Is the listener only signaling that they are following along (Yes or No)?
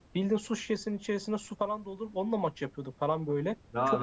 No